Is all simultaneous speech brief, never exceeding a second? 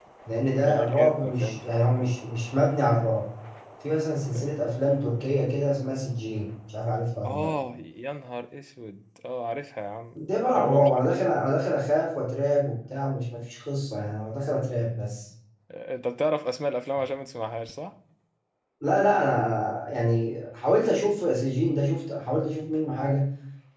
No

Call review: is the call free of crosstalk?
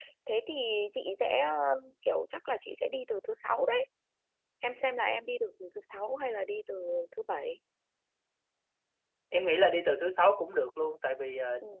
Yes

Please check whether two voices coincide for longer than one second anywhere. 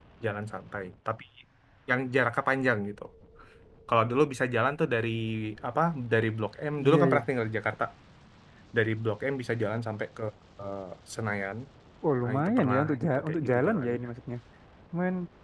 Yes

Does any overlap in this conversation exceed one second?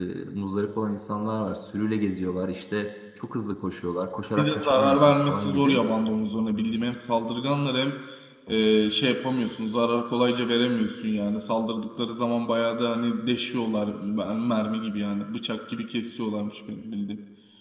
Yes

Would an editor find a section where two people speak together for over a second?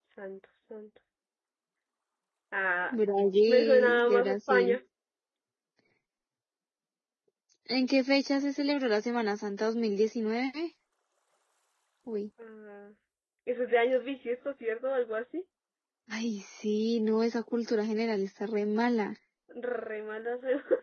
Yes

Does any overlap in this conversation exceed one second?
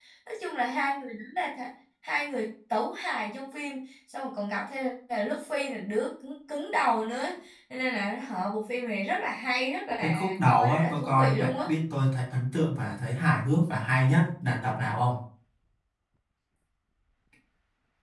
Yes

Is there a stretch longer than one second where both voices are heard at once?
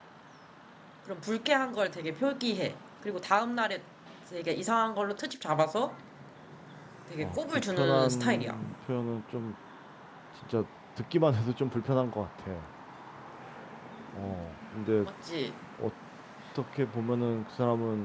Yes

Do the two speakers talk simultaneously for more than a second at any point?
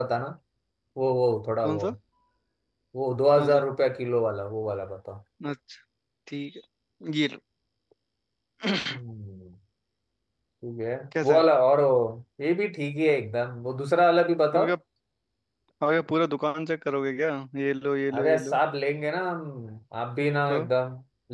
No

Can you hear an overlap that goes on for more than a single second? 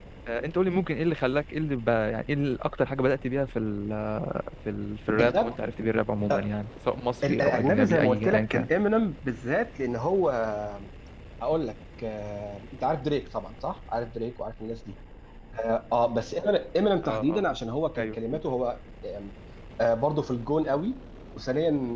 Yes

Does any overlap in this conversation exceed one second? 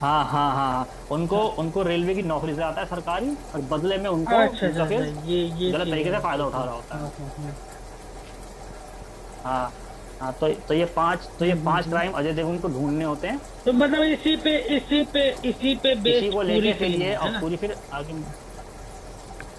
Yes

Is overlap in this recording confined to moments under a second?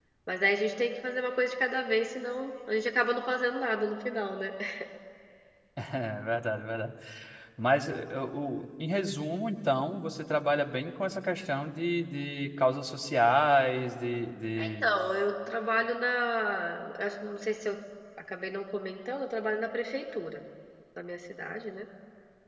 Yes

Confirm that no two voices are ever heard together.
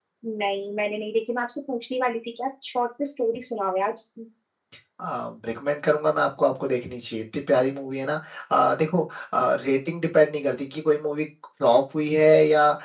Yes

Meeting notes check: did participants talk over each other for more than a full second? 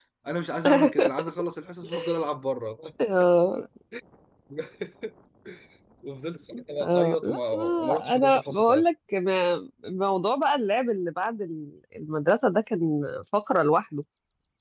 Yes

